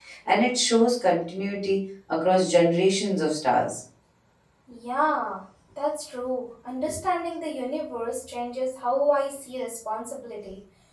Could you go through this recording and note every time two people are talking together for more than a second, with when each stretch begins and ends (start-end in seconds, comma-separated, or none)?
none